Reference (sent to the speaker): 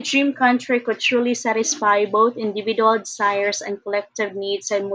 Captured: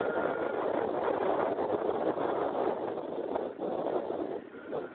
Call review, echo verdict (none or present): none